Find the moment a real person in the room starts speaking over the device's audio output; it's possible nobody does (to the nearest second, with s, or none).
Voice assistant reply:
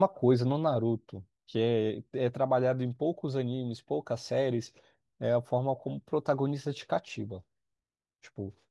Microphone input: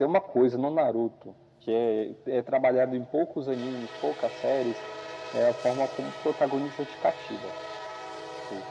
none